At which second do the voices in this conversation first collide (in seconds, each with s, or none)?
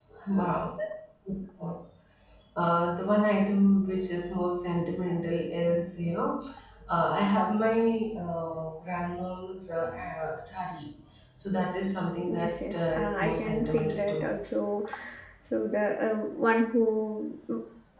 12.3 s